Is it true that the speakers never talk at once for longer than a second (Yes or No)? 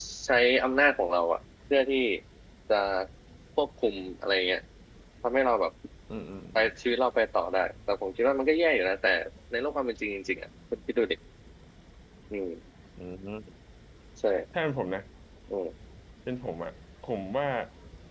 Yes